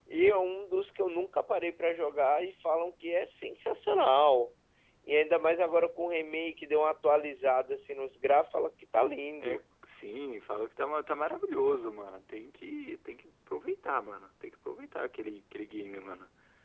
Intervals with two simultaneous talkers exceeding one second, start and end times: none

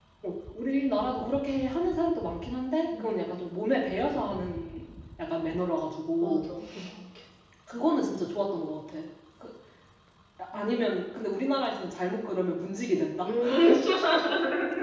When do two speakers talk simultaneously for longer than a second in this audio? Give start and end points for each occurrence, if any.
none

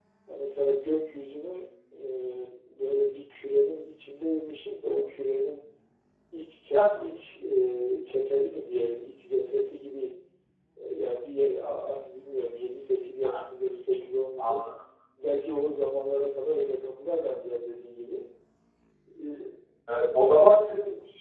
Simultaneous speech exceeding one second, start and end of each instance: none

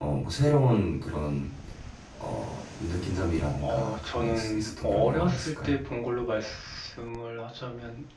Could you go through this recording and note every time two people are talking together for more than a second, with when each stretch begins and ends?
3.5-5.8

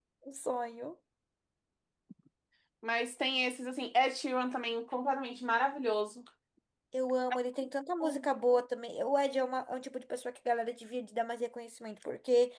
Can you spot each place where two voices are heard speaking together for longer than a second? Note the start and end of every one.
none

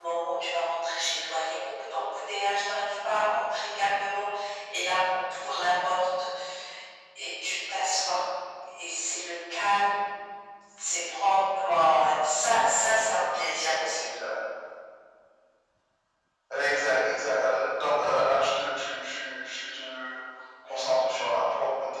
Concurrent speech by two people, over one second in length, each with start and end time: none

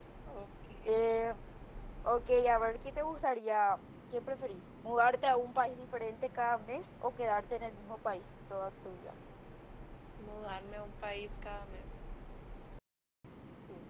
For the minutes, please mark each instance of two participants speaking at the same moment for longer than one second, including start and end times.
none

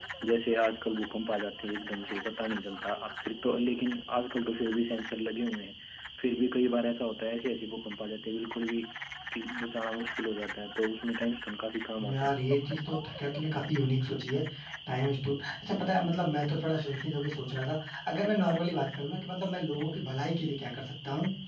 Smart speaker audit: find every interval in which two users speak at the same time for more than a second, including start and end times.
none

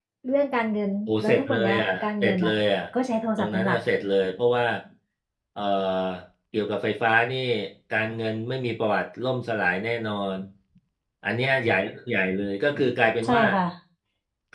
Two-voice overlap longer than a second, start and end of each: 1.1-2.5

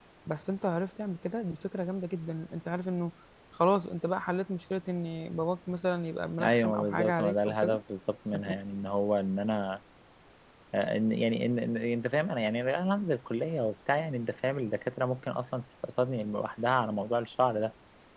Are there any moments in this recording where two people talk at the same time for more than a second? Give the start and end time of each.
6.4-7.8

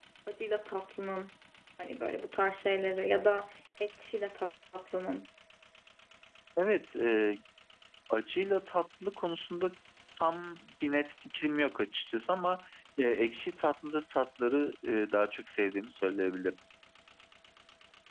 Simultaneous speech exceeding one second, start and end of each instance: none

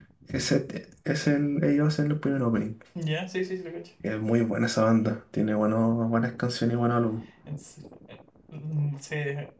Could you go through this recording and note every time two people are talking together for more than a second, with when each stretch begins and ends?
none

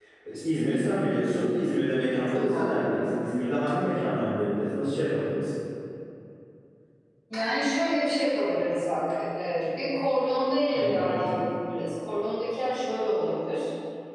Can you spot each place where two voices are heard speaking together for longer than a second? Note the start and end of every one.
none

